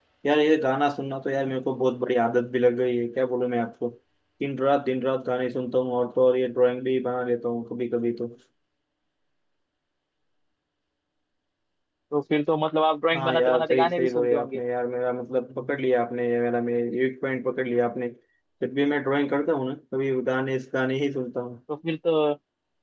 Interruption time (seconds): 13.1 s

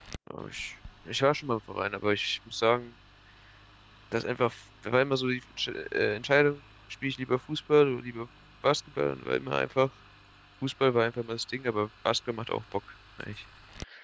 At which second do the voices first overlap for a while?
none

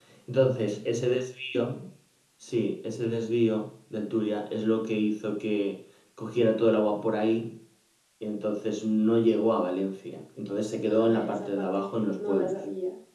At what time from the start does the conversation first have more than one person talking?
10.9 s

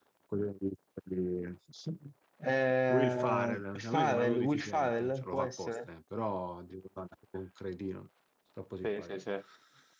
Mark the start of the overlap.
2.9 s

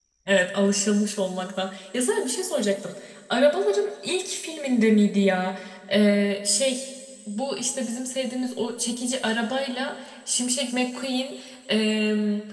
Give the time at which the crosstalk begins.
none

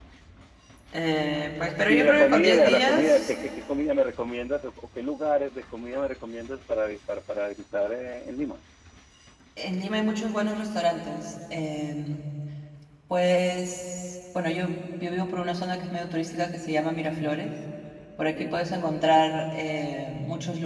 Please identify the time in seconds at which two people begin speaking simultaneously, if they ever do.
1.9 s

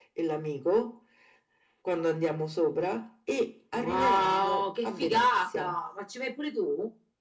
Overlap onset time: 3.7 s

